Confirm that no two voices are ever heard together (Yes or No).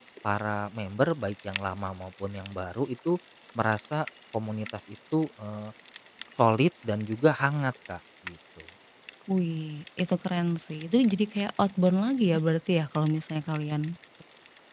Yes